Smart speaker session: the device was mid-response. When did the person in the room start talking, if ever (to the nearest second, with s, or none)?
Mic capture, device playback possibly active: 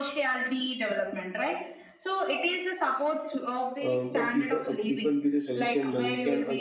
4 s